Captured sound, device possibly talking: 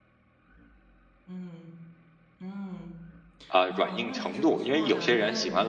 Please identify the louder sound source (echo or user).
user